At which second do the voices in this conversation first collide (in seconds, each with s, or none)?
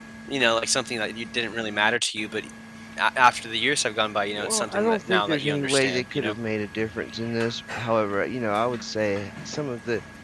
4.4 s